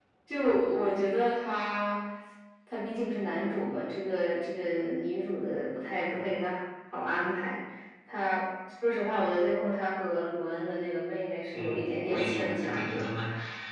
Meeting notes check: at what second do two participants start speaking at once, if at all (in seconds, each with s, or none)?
11.5 s